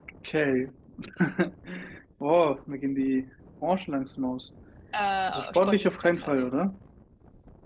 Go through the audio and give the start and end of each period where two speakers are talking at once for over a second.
5.3-6.5

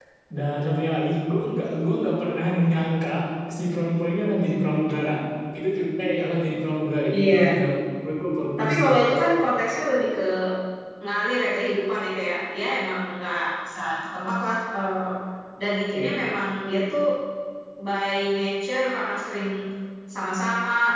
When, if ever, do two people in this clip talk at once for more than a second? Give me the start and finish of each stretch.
none

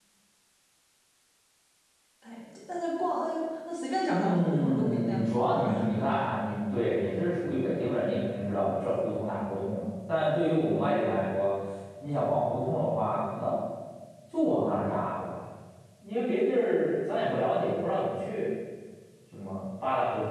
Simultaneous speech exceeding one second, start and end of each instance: 4.1-5.8

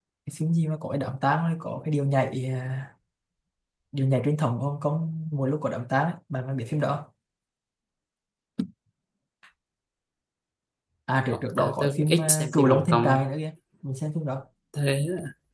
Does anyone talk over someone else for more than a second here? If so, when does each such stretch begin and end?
11.3-13.2

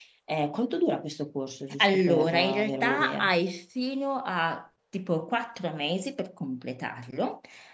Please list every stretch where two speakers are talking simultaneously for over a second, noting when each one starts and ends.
1.8-3.3

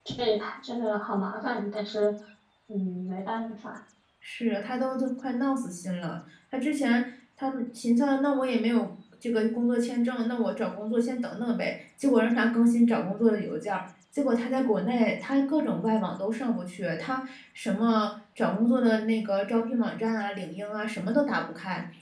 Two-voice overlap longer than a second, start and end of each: none

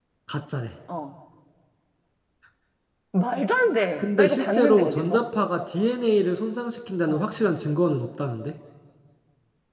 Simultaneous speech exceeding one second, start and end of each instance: 4.0-5.2

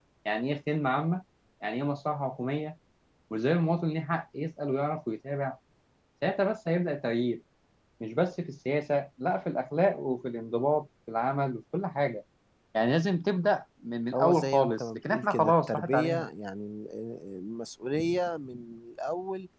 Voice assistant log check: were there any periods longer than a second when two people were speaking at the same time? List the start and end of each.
14.1-16.3

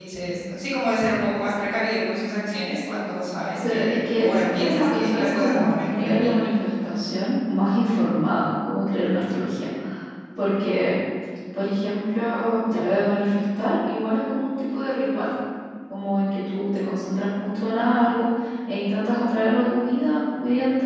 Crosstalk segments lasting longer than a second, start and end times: 3.7-6.3

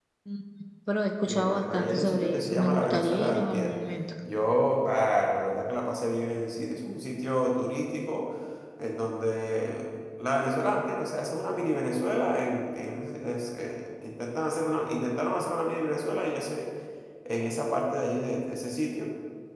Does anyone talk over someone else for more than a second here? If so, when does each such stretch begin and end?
1.2-3.8

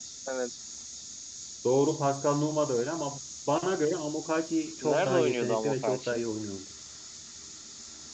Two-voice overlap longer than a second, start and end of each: 4.8-6.2

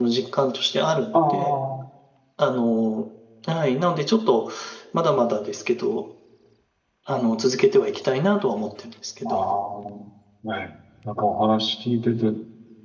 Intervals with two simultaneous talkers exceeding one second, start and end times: none

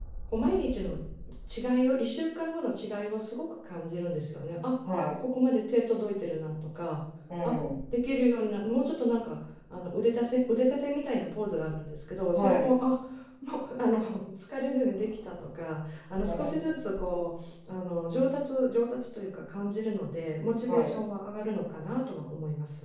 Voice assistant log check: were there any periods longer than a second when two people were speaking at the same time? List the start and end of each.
none

